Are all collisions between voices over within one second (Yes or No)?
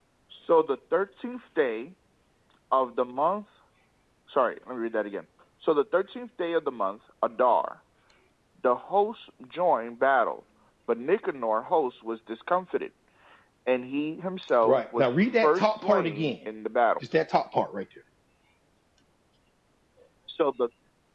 No